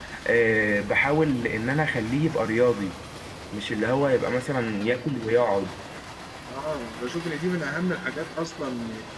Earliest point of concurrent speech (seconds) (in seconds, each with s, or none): none